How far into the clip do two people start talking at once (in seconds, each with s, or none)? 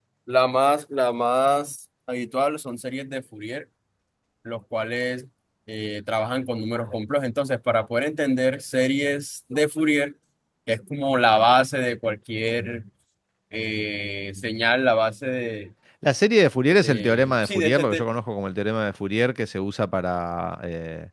16.8 s